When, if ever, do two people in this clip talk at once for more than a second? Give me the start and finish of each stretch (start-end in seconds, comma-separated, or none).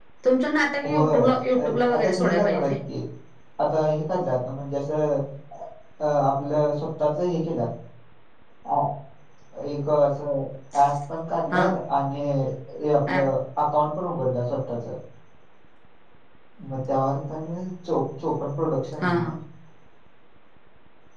0.9-2.7